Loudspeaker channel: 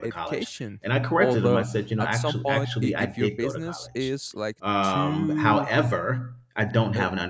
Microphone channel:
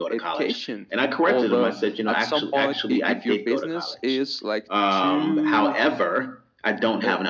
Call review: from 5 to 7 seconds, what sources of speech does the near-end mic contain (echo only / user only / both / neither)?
echo only